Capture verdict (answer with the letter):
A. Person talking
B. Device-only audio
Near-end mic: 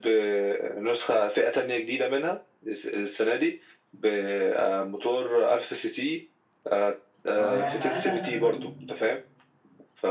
A